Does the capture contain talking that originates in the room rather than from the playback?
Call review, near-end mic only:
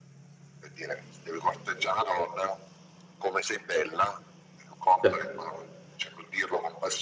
Yes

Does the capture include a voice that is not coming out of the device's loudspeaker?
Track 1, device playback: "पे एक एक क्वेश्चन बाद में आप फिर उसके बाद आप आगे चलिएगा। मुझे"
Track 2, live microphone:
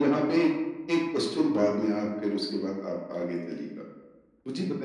No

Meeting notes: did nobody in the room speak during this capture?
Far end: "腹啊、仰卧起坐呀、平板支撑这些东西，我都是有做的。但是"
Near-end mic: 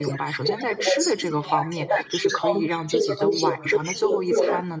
No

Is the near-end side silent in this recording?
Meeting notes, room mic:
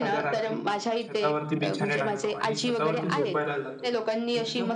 No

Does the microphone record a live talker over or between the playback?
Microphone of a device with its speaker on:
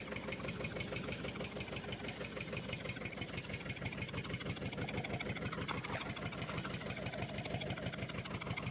No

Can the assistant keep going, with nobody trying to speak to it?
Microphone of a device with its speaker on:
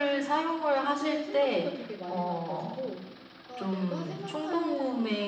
Yes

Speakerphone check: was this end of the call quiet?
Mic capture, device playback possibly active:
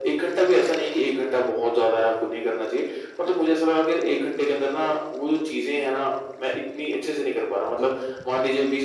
Yes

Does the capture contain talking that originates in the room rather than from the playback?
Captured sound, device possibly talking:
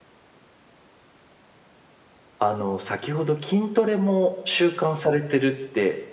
Yes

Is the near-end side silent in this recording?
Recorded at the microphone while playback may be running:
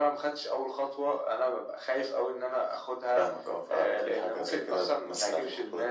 Yes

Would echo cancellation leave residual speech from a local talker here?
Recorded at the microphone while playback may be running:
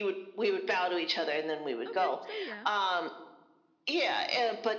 Yes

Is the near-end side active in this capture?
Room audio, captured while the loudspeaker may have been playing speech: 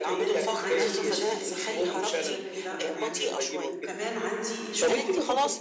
Yes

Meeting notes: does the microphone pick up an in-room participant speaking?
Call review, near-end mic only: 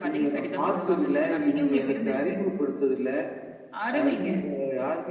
No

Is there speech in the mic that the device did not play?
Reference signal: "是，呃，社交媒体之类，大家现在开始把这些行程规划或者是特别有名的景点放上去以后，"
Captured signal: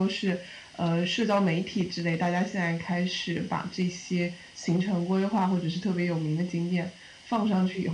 No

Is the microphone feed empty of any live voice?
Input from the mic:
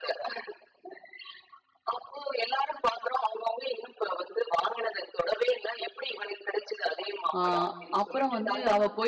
No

